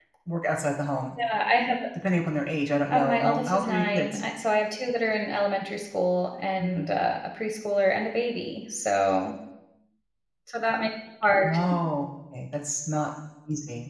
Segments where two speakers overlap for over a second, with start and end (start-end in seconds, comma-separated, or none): 2.9-4.2